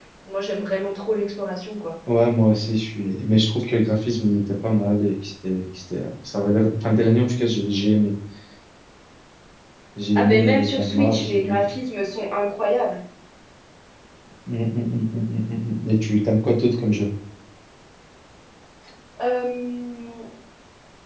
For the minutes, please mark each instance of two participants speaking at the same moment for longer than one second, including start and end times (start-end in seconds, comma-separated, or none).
10.2-11.7